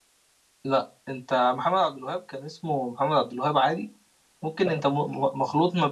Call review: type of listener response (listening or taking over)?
listening